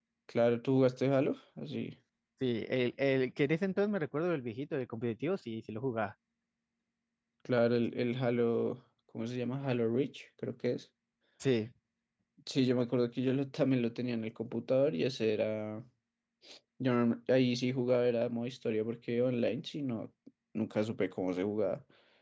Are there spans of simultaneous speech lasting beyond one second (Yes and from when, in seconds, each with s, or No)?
No